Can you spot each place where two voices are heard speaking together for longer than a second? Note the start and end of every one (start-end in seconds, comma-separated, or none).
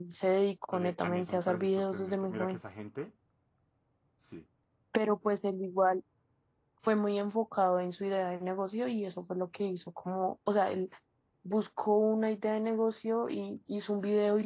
0.7-2.6